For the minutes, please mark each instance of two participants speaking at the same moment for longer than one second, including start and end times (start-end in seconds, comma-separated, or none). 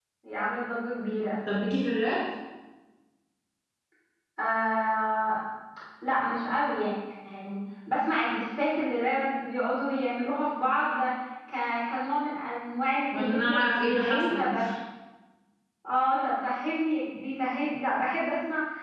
13.1-14.5